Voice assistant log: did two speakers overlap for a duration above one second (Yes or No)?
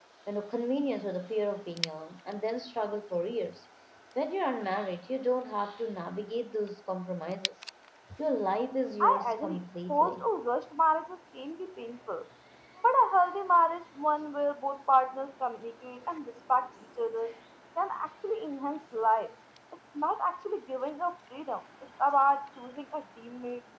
Yes